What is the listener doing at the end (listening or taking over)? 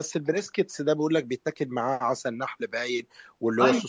listening